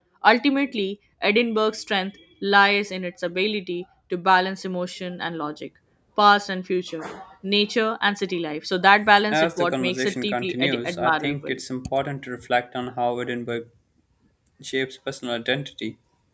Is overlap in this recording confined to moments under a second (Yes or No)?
No